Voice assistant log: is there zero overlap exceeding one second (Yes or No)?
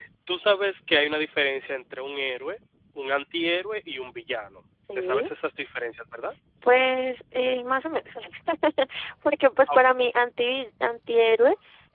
Yes